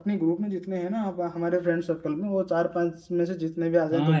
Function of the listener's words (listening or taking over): taking over